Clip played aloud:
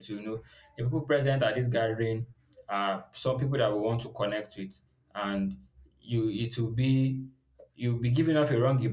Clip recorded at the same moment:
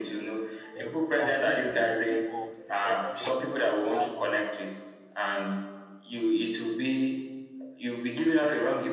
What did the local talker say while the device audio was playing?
ex- outweigh the relief of the, of honesty. So that's my own.

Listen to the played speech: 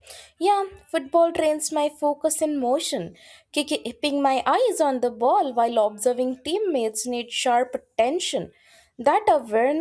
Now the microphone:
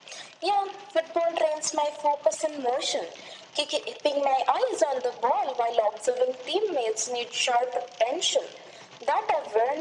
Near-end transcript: none

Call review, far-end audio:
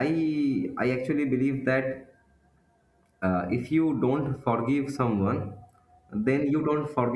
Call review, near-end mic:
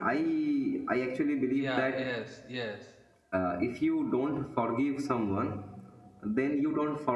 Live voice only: yeah yes yes

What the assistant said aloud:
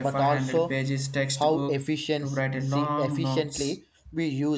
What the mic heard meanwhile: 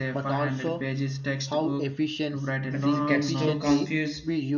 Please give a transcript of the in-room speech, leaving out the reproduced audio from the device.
but he gets too confused

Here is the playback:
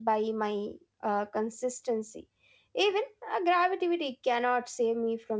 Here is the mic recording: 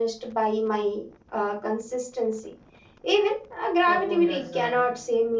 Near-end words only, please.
your phone has uh,

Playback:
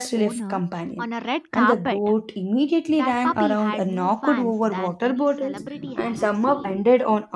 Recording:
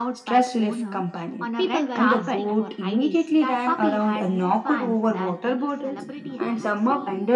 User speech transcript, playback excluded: People were asking for IDs,

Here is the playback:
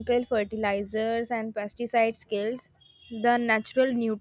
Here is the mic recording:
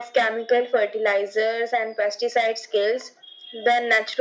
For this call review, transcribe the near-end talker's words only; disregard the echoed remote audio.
none

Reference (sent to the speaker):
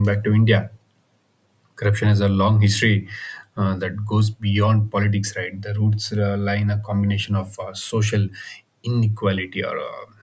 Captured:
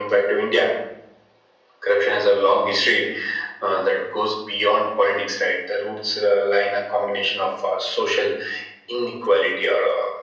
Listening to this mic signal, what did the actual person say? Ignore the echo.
none

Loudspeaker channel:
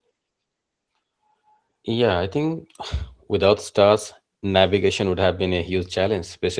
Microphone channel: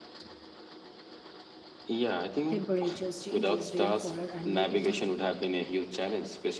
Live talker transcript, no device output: temperatures, changes, rainfall, or animal behavior.

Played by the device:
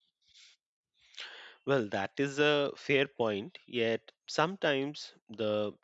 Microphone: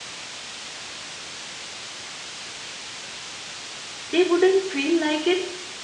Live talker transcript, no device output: they wouldn't feel like an

